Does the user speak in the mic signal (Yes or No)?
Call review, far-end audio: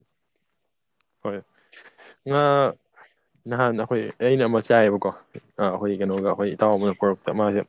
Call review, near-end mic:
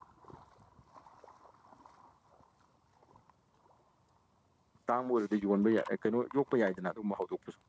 Yes